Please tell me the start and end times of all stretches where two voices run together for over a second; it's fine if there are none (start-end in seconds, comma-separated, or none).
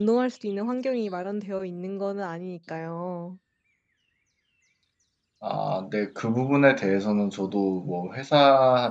none